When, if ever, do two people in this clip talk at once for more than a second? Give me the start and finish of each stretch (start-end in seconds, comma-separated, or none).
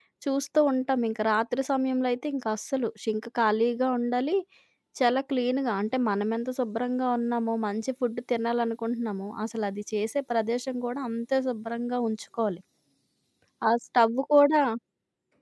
none